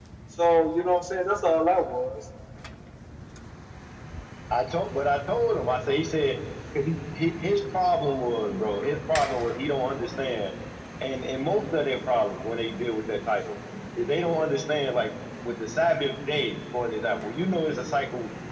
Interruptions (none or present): none